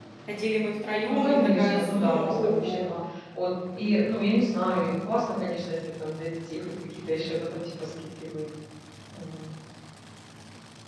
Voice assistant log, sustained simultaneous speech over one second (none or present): present